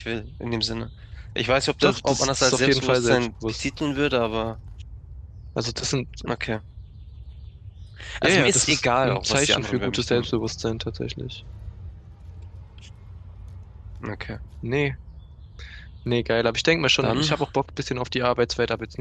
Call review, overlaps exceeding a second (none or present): present